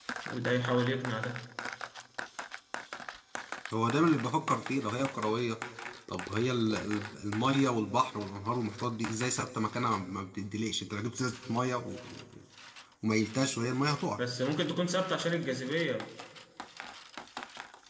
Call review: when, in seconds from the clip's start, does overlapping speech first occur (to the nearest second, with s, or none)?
none